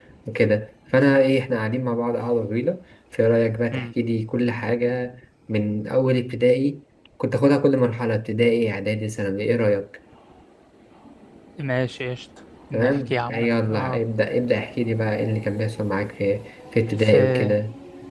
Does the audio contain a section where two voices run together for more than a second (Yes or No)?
Yes